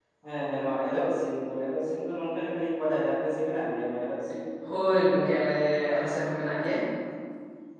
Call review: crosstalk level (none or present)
none